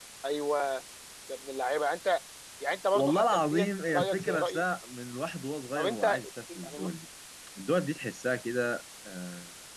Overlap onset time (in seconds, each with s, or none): 2.9 s